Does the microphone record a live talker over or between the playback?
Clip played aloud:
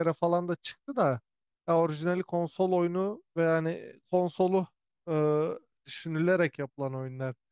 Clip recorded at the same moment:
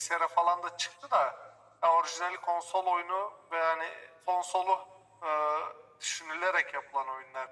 No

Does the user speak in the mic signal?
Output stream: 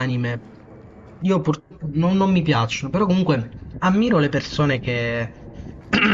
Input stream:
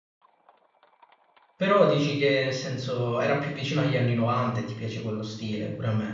Yes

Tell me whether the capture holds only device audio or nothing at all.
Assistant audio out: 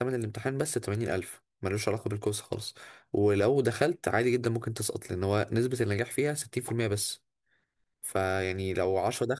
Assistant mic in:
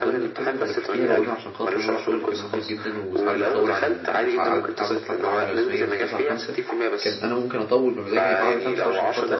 No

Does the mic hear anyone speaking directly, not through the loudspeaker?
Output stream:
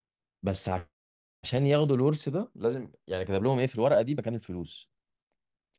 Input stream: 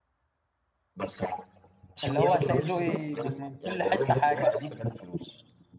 Yes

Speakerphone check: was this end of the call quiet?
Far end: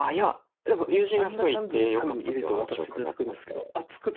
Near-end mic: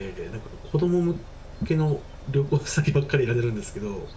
No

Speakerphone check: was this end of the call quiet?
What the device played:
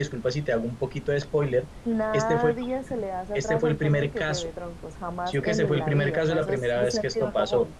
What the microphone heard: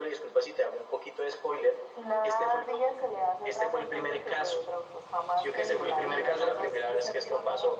Yes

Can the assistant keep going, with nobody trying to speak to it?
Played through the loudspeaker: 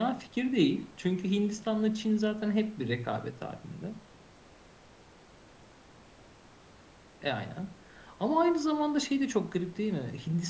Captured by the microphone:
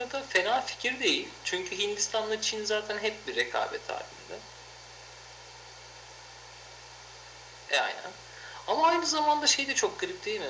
Yes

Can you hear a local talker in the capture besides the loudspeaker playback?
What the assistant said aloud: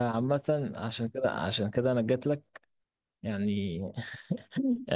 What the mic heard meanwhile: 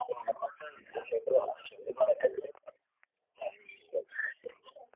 No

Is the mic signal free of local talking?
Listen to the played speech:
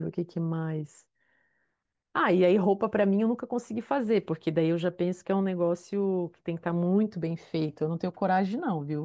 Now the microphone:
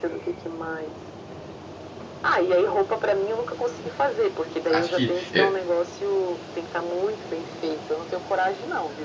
No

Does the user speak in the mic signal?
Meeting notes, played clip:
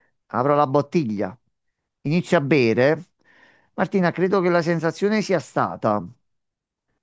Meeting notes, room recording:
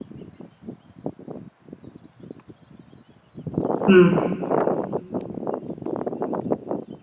Yes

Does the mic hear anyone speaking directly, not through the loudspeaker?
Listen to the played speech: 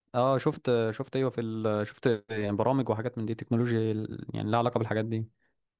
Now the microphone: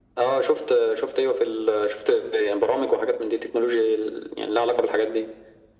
No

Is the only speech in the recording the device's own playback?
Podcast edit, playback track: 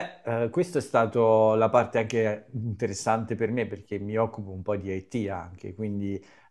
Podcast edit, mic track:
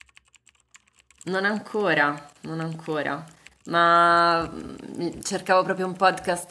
No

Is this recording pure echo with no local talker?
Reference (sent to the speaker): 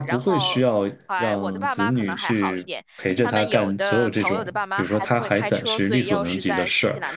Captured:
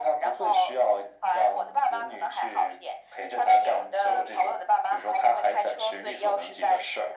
Yes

